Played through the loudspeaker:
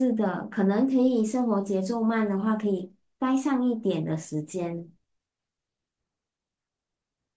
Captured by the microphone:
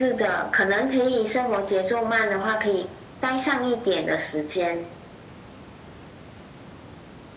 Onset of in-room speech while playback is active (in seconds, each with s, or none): none